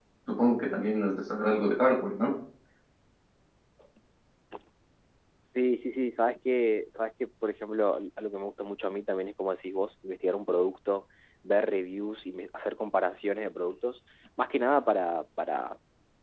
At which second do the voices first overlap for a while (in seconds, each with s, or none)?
none